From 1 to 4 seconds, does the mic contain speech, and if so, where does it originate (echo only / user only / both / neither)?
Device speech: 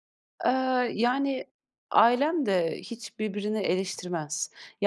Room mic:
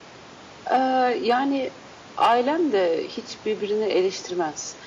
echo only